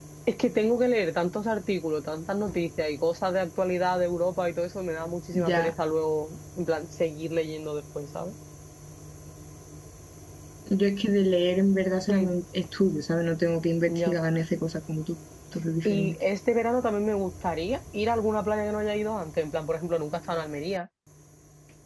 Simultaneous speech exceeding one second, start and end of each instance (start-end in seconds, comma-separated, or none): none